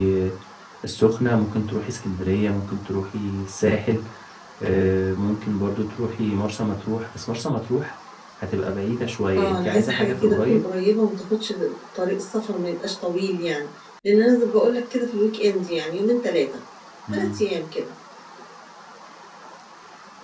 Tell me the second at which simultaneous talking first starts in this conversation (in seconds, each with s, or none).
9.4 s